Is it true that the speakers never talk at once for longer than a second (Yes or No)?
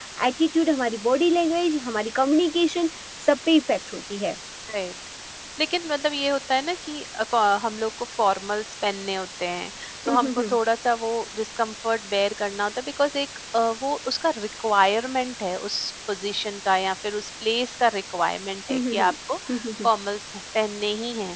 Yes